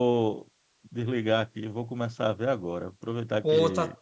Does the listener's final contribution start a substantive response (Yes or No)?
No